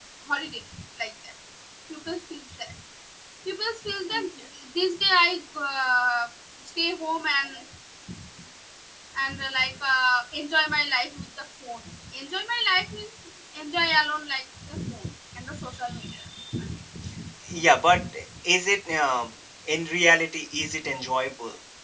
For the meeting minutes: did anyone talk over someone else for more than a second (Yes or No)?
No